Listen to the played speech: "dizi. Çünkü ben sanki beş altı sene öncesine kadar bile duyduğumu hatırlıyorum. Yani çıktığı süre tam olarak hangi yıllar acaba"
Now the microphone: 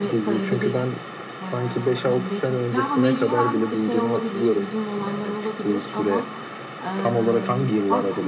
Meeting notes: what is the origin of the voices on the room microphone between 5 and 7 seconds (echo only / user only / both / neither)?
both